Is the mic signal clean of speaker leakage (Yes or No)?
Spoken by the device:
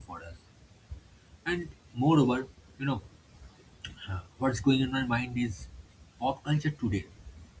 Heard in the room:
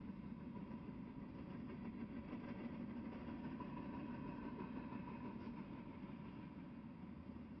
Yes